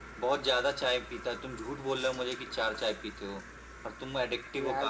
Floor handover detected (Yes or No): Yes